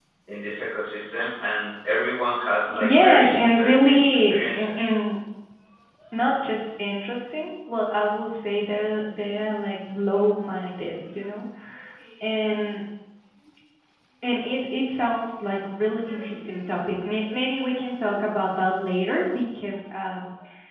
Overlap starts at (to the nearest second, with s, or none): 3 s